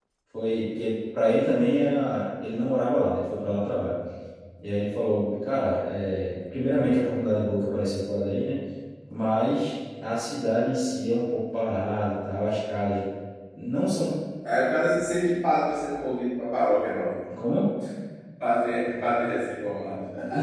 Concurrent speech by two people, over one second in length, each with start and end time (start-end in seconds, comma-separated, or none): none